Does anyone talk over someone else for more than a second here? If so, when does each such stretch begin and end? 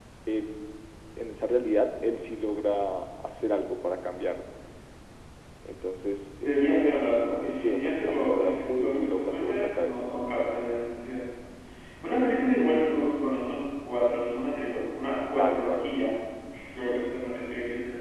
6.4-10.0

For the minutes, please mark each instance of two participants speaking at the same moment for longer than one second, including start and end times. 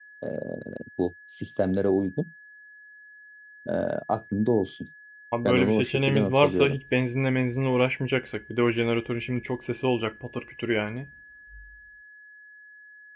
5.4-6.8

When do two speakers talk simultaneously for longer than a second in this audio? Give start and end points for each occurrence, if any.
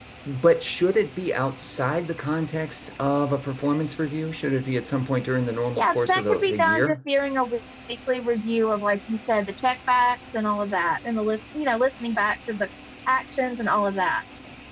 5.8-7.0

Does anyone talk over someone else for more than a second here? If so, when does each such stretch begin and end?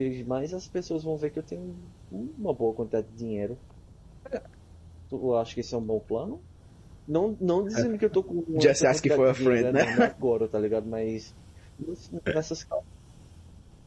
8.6-10.1

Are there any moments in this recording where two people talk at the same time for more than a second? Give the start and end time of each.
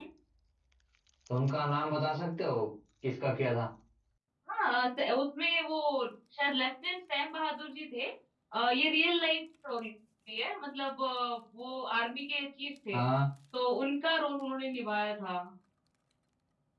none

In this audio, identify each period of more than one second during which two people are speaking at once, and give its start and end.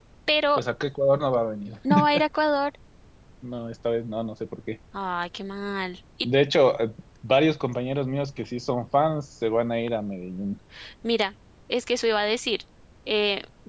none

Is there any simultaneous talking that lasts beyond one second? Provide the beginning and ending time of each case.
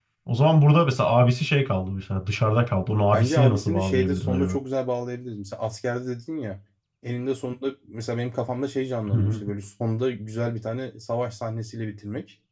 3.1-4.6

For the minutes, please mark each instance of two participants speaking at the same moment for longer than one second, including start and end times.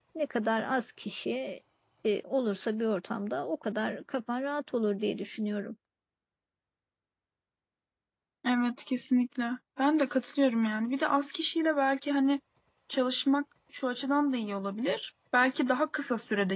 none

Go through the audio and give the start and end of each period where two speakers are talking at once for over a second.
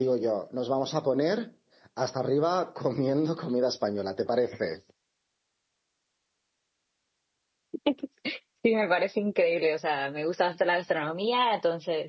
none

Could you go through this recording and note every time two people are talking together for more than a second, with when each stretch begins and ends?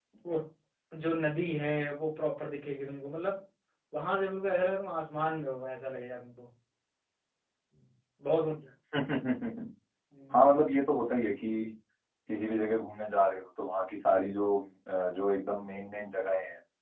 none

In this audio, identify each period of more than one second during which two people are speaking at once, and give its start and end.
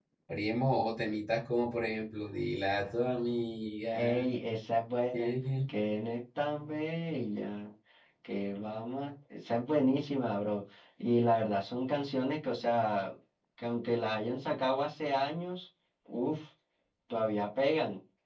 none

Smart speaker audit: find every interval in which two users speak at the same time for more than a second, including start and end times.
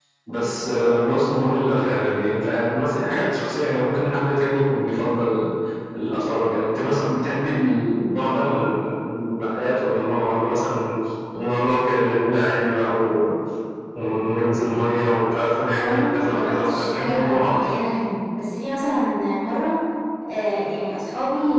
15.8-17.9

